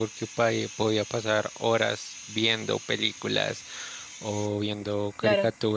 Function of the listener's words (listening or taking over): listening